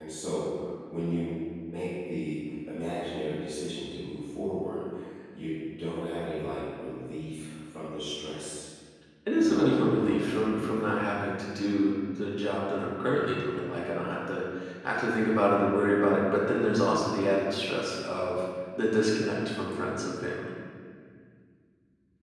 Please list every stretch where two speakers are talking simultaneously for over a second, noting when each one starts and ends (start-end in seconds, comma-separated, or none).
9.3-10.9